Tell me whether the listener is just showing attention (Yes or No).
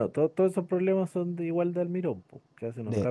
No